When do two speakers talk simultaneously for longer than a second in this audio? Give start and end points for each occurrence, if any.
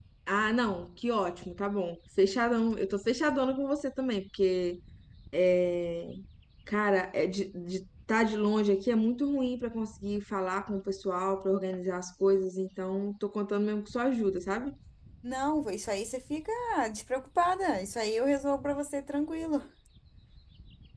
none

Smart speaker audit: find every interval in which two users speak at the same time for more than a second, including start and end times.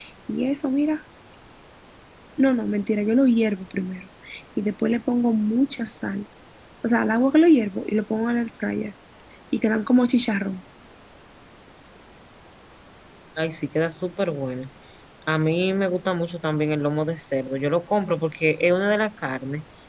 none

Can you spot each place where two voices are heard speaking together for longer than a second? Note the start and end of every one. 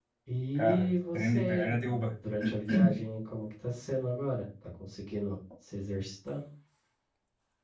0.6-2.1

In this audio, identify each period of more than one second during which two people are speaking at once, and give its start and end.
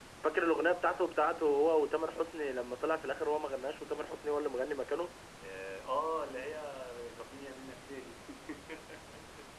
none

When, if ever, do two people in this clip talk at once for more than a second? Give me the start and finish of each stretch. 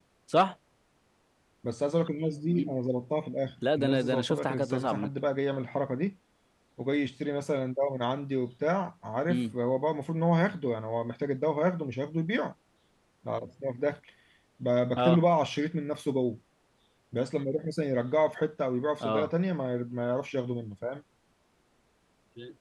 3.8-5.1

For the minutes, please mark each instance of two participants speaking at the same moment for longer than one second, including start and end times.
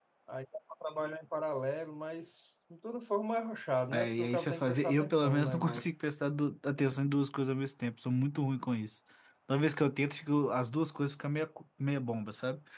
3.9-5.9

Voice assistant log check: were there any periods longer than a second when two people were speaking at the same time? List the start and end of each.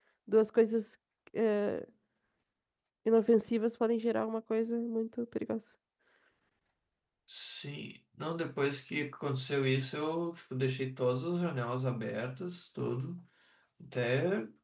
none

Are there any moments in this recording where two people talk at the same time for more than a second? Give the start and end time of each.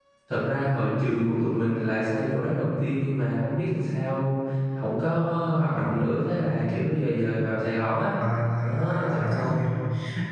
8.2-9.5

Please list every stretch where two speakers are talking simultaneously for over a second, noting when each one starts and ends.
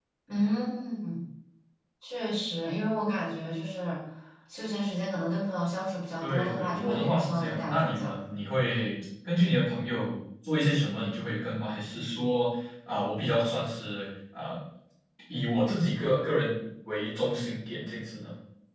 6.2-8.2

